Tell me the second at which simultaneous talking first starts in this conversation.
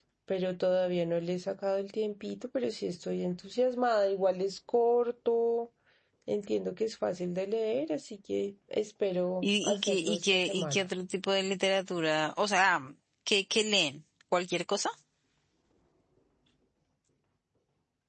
9.4 s

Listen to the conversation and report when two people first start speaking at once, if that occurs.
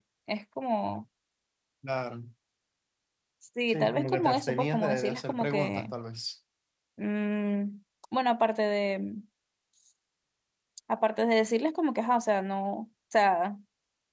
3.7 s

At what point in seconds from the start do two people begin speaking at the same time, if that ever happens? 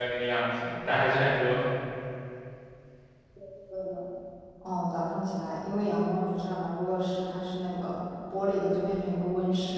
none

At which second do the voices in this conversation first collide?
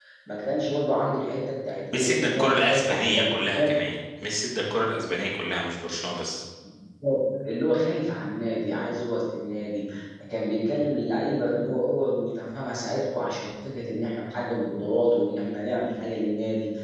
1.9 s

